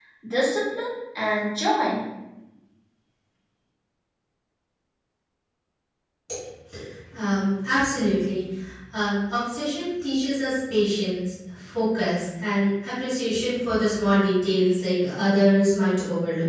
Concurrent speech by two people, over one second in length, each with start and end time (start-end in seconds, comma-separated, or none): none